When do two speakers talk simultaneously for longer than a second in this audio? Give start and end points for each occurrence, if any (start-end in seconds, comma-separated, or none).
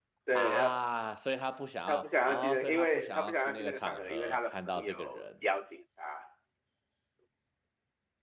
1.9-5.2